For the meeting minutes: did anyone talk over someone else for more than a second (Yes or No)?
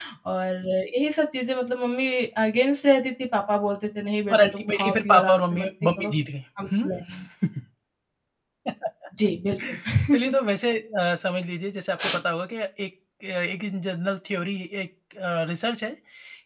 Yes